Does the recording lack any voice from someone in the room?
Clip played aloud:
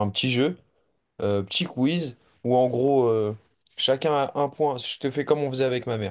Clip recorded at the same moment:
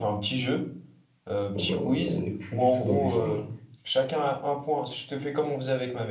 No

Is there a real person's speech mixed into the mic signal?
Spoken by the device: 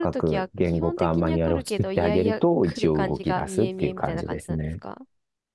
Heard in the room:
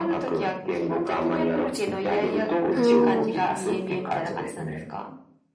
Yes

